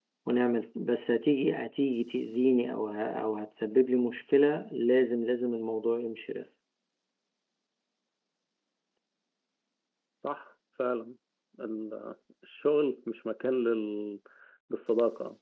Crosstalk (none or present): none